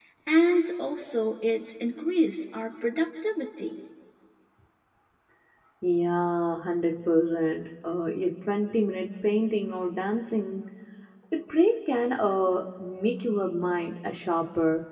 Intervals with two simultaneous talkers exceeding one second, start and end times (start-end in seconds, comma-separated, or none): none